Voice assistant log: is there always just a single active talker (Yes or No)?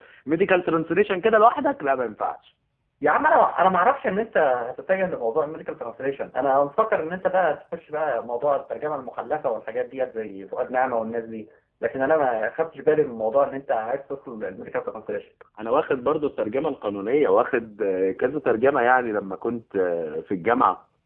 Yes